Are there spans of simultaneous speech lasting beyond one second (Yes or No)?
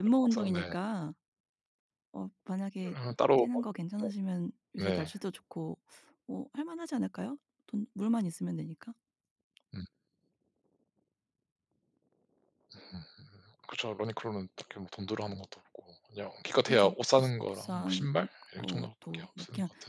Yes